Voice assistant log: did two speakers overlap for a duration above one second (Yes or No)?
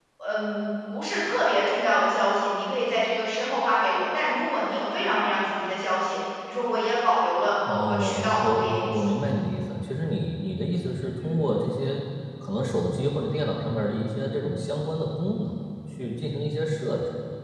Yes